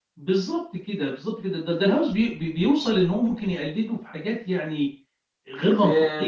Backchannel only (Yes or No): No